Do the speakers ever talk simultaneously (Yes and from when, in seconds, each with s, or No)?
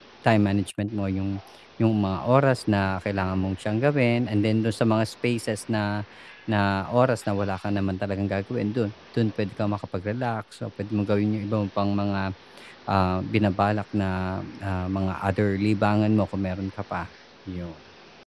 No